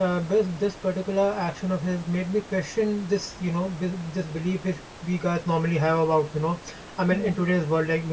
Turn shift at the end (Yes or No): No